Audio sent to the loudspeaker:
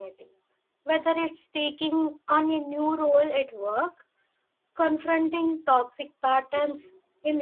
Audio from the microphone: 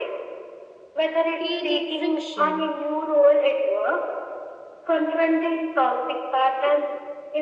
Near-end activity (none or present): present